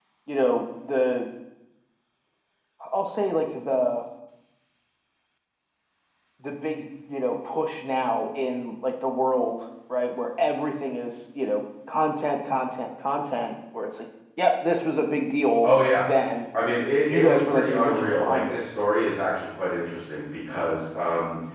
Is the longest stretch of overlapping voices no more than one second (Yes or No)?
No